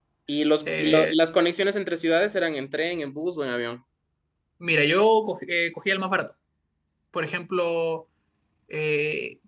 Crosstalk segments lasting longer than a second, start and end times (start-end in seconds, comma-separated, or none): none